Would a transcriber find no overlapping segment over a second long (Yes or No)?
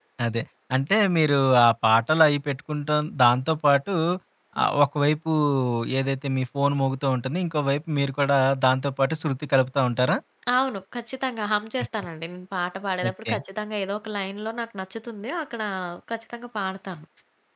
Yes